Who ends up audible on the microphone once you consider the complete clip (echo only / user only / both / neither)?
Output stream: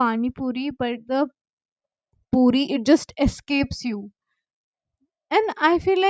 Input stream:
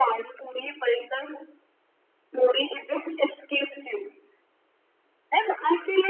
echo only